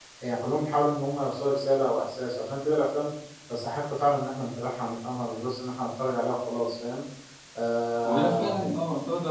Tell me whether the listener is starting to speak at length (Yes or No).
Yes